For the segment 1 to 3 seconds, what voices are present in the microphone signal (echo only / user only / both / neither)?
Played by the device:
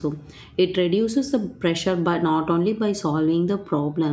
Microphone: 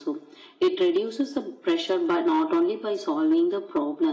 echo only